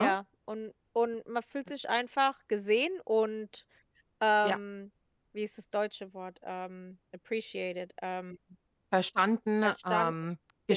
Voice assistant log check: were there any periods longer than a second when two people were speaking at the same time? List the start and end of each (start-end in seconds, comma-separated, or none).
none